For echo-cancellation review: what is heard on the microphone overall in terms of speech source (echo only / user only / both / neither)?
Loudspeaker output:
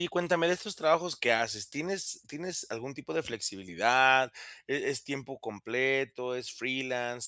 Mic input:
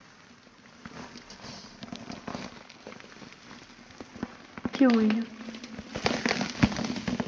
user only